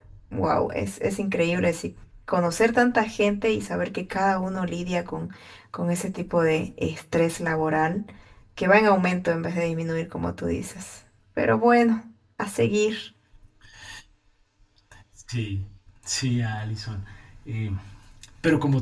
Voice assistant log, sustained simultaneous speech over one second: none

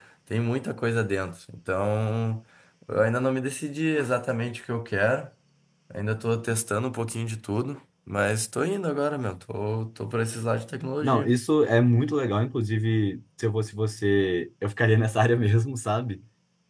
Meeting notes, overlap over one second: none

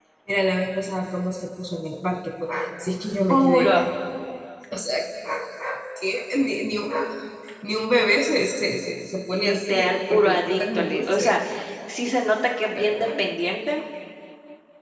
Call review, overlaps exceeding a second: present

